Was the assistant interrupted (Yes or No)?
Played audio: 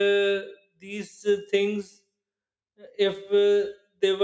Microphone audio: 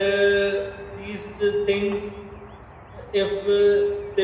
No